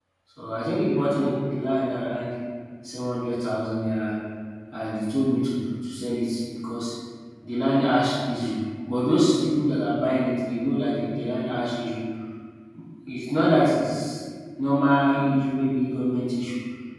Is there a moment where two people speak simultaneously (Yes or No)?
No